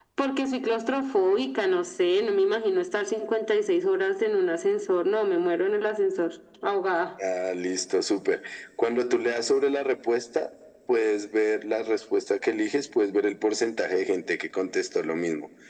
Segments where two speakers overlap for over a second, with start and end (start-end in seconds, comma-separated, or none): none